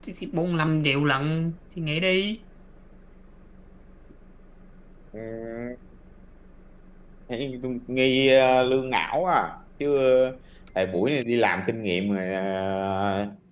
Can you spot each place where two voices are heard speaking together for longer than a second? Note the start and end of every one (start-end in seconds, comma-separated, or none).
none